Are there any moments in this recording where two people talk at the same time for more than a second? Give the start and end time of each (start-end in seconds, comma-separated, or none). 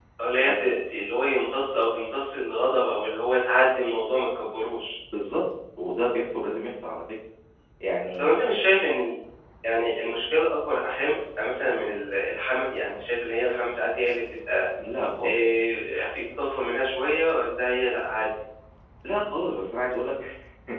none